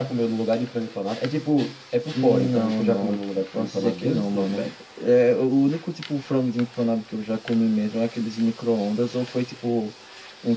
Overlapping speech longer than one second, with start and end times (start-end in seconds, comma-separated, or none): 2.1-4.7